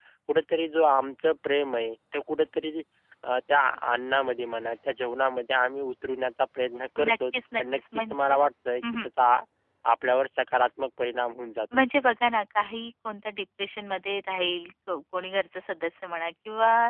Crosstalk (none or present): present